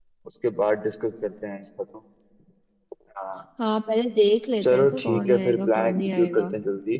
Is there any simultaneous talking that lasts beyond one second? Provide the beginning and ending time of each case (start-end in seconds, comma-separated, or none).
4.6-6.5